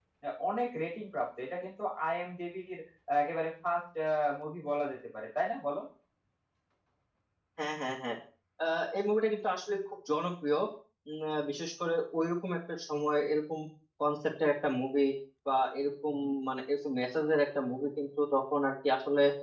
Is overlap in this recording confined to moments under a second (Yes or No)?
Yes